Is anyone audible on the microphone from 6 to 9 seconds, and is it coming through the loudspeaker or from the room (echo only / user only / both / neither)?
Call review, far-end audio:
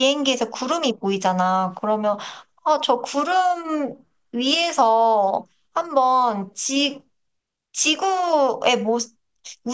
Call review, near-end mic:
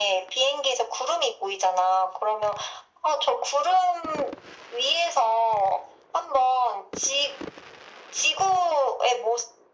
echo only